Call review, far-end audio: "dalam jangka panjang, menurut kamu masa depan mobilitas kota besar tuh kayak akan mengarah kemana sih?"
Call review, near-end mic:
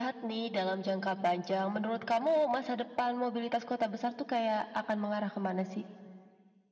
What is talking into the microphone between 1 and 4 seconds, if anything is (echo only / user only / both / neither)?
echo only